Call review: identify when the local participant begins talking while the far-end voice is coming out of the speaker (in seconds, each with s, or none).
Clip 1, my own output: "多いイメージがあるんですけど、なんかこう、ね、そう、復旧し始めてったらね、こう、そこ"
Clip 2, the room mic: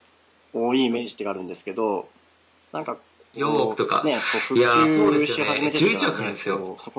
3.3 s